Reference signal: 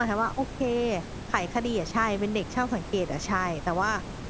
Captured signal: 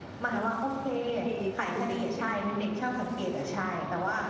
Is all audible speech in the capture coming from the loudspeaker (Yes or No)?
No